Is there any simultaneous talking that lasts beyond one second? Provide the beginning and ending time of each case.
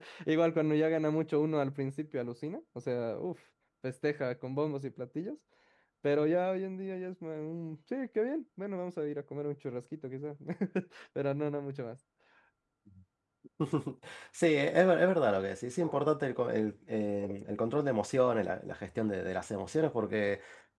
none

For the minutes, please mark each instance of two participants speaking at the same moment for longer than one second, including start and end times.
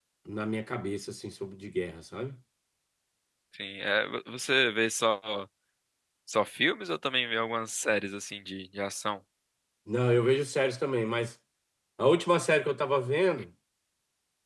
none

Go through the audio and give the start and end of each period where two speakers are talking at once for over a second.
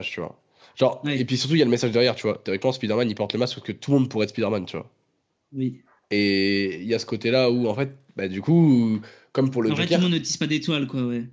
none

